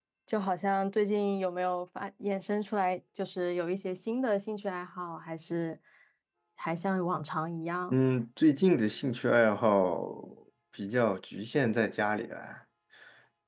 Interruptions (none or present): none